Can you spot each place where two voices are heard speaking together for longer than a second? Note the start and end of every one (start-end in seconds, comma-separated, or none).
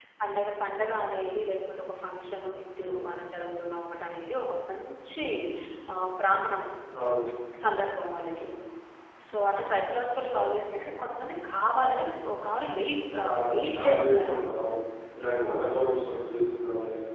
13.2-14.4